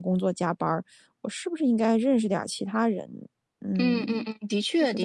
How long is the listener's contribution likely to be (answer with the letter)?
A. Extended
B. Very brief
A